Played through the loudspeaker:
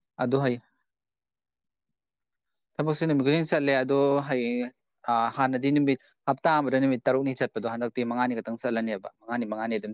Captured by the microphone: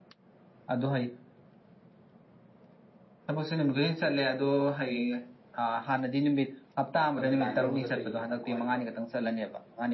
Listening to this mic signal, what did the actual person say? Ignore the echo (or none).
ꯀꯩꯅꯣ ꯂꯥꯏꯟꯗ ꯑꯃꯨꯛ ꯆꯠꯇꯣꯏꯅꯤꯗꯅꯀꯣ ꯑꯩꯗꯣ